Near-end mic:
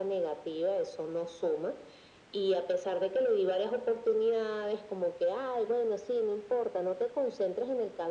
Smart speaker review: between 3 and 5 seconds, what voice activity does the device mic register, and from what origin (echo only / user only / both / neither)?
echo only